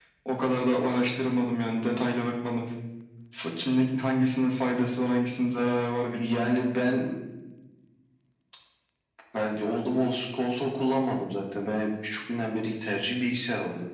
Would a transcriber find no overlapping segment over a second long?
Yes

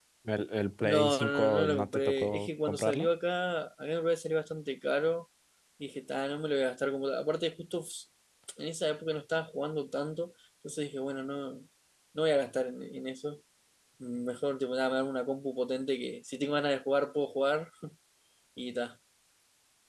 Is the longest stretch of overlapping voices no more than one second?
No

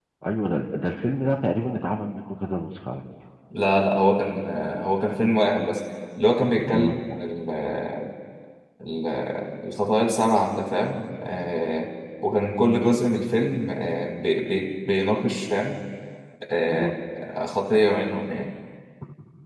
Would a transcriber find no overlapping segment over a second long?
Yes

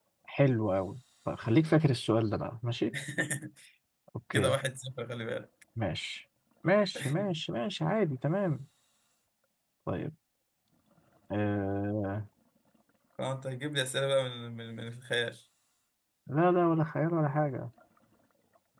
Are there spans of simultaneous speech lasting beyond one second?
No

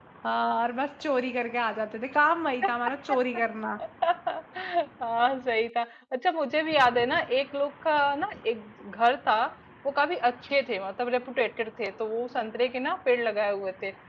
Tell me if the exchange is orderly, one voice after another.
Yes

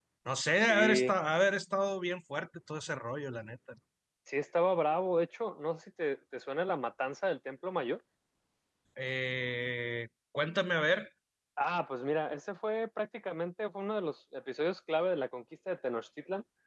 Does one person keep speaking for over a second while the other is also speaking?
No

